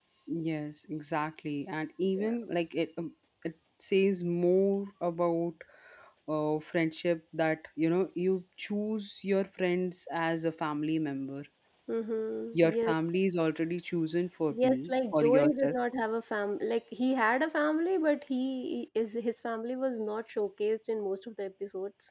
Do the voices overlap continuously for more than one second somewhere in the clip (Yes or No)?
Yes